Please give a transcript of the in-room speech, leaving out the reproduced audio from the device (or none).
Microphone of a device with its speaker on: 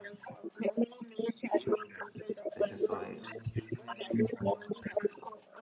so I just saw it.